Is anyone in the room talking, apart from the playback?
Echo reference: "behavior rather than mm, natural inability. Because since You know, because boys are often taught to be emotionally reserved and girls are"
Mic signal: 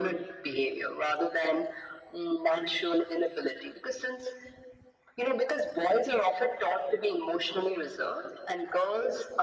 No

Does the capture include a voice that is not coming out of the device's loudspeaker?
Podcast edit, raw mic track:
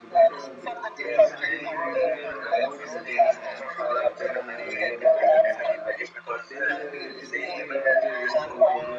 Yes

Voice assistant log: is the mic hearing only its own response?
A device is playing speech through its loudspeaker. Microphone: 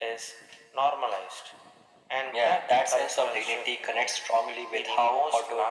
Yes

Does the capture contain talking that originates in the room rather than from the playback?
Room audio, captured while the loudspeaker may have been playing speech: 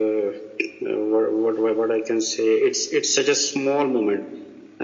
No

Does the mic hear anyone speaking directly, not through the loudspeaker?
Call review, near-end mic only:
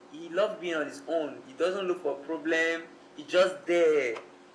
No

